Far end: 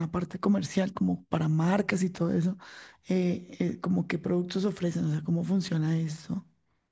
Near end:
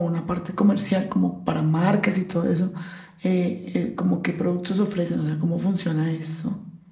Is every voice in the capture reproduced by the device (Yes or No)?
Yes